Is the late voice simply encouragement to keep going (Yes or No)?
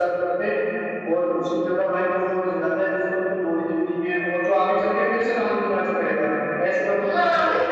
No